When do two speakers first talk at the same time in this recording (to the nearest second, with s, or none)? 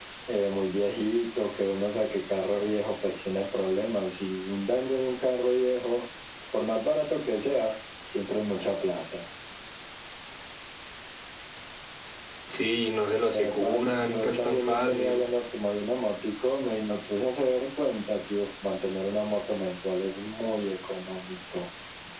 13 s